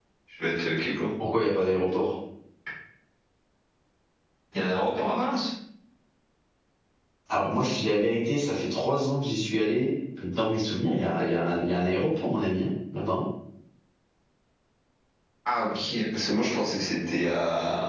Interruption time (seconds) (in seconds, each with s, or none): none